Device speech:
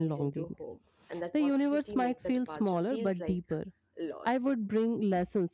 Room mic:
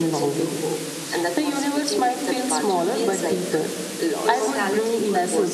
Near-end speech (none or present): present